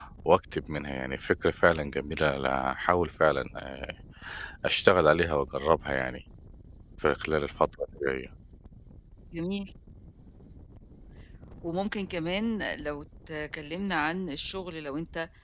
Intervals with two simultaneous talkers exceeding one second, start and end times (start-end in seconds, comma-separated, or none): none